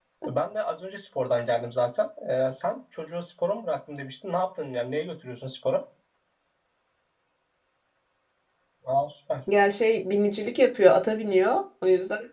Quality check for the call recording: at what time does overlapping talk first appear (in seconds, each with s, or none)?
none